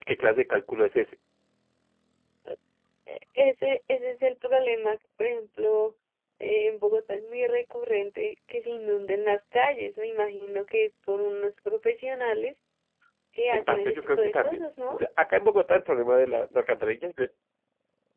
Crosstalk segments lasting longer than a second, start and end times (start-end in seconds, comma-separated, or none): 13.5-15.0